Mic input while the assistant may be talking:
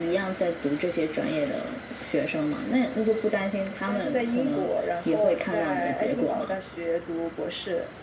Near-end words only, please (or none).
none